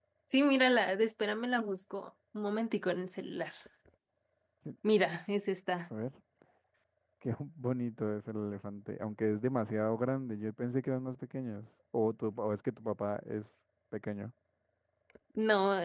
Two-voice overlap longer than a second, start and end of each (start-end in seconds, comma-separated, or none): none